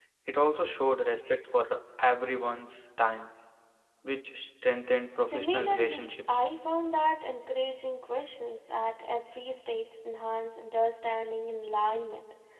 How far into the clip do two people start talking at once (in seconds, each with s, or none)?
5.2 s